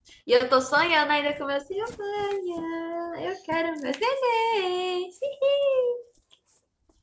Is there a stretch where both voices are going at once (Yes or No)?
No